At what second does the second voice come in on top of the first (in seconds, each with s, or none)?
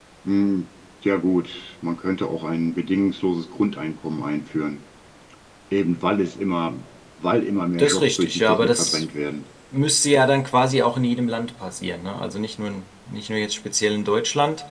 7.8 s